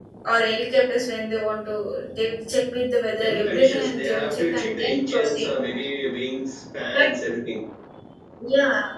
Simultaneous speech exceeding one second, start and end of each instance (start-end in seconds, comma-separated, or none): 3.2-5.5